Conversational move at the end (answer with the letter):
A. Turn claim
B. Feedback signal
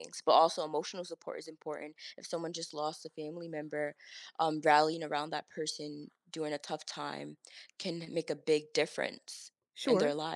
A